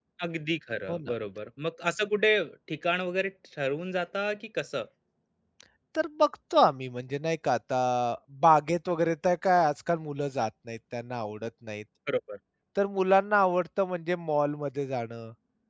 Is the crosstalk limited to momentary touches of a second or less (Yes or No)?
Yes